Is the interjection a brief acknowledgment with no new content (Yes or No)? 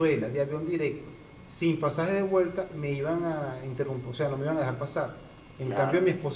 Yes